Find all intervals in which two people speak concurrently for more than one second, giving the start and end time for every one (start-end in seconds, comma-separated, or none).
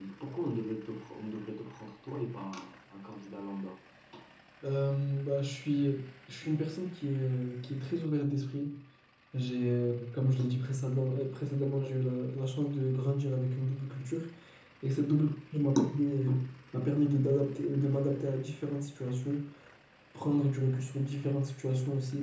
none